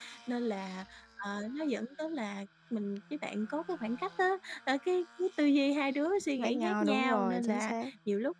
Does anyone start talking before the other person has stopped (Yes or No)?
Yes